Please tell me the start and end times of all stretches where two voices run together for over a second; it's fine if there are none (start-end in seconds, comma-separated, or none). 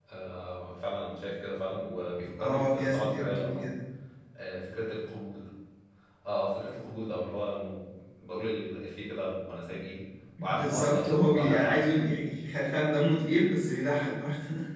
2.4-3.7, 10.4-12.1